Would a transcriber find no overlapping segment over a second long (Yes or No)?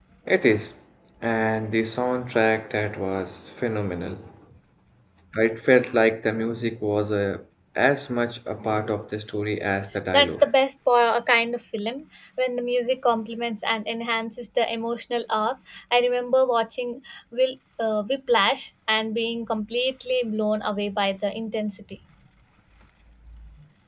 Yes